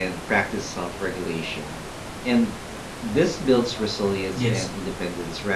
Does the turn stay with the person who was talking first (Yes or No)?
Yes